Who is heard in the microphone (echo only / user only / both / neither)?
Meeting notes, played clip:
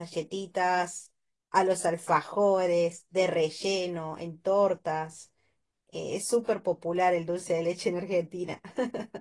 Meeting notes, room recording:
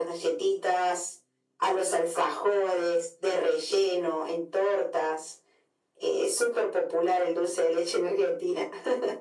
echo only